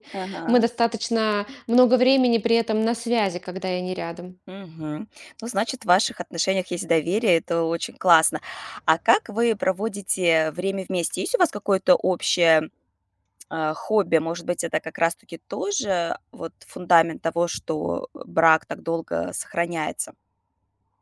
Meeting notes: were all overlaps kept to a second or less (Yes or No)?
Yes